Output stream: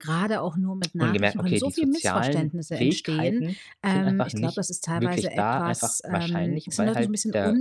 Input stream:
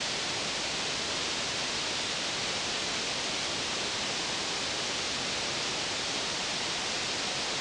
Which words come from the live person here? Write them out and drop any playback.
none

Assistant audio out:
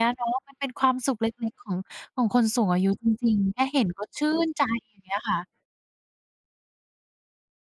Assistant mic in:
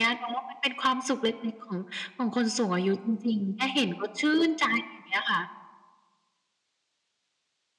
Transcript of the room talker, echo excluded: none

